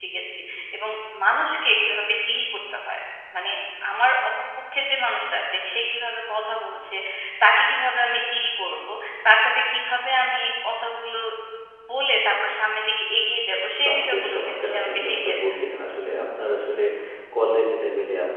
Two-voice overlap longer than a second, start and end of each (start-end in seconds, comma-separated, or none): 13.8-15.6